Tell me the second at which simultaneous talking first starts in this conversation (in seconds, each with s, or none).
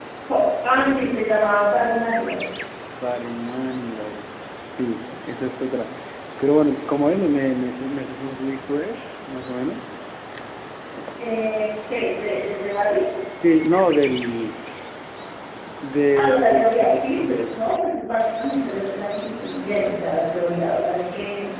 16.1 s